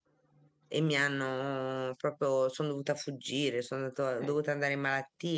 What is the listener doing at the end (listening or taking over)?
listening